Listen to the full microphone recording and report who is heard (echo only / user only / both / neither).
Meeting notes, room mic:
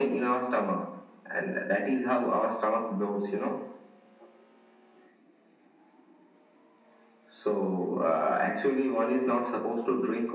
echo only